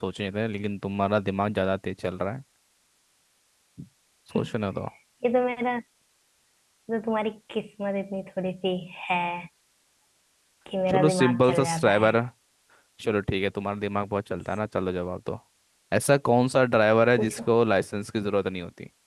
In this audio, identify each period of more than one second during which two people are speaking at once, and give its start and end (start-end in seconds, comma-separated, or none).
10.9-12.1